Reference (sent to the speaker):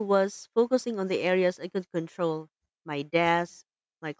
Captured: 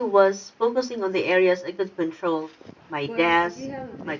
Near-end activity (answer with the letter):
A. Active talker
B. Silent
A